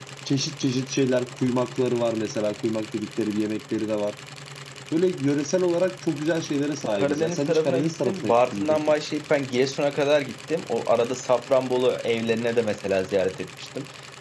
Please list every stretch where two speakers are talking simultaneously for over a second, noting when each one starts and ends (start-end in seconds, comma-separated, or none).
7.0-8.8